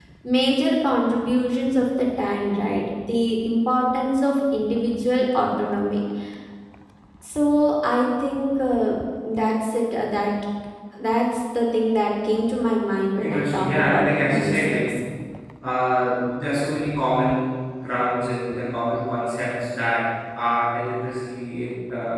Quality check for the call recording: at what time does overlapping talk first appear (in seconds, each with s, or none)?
13.2 s